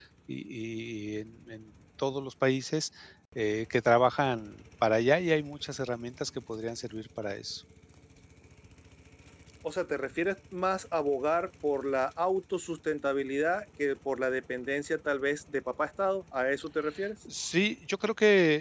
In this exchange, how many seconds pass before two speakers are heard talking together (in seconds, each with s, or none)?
none